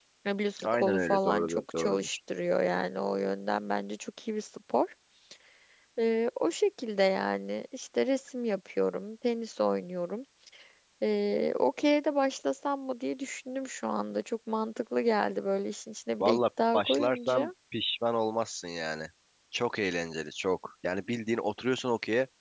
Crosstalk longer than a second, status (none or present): present